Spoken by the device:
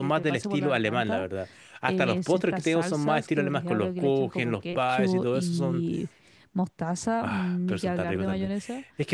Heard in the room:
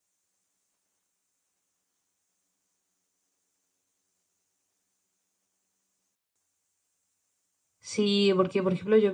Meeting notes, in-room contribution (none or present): present